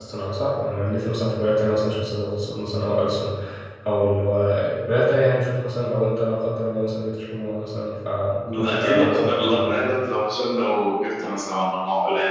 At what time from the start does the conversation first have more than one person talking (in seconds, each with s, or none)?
8.4 s